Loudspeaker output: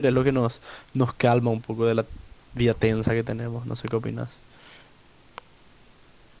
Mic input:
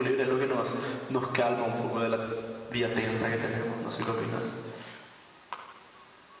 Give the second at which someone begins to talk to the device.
none

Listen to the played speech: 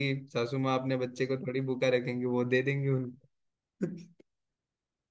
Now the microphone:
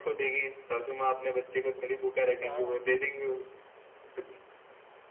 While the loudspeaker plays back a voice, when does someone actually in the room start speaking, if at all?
2.4 s

